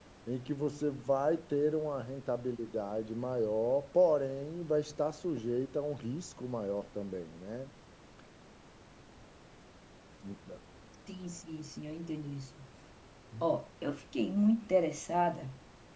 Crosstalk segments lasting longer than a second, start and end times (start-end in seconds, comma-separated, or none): none